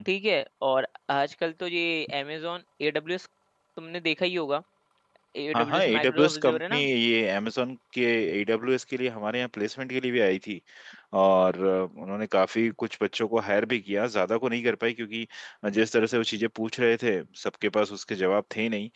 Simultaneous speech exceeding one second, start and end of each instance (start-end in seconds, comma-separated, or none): 5.5-6.9